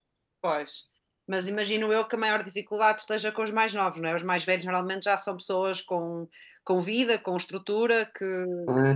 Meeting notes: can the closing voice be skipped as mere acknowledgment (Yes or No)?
No